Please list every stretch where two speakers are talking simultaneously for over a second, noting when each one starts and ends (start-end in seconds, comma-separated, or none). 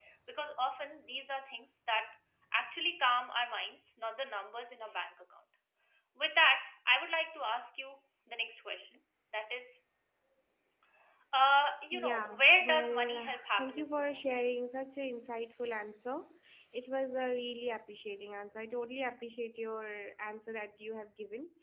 11.9-14.3